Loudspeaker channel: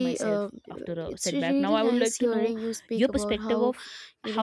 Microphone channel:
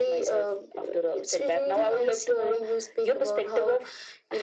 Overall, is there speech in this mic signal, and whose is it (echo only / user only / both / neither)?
echo only